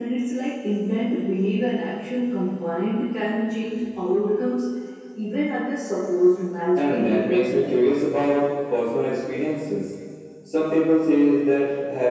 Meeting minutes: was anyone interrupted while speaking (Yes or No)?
Yes